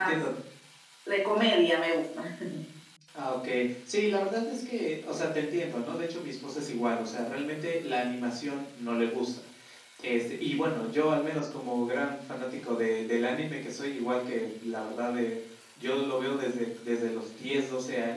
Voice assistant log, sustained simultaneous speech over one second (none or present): none